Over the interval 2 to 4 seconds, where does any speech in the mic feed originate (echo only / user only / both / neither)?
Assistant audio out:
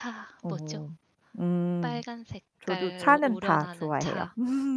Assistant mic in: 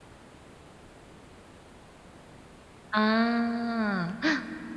user only